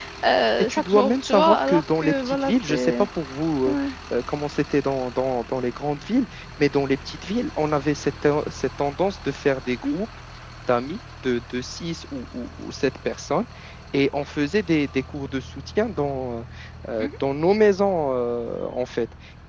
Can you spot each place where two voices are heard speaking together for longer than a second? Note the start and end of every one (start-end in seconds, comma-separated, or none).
0.6-3.1